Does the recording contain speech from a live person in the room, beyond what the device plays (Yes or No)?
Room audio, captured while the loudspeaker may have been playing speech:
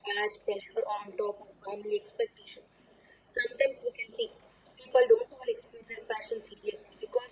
No